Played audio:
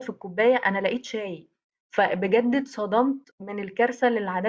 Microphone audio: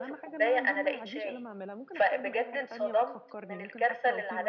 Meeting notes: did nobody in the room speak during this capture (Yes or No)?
No